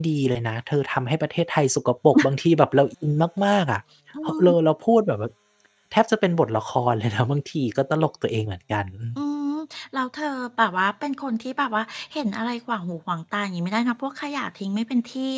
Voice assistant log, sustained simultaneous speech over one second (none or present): none